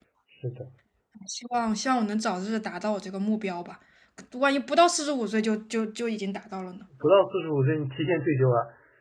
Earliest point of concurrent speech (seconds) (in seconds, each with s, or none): none